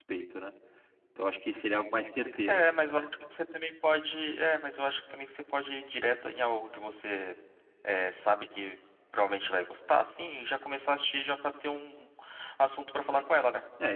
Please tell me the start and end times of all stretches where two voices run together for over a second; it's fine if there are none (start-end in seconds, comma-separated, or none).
none